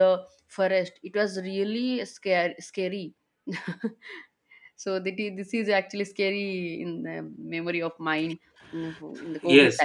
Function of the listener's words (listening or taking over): taking over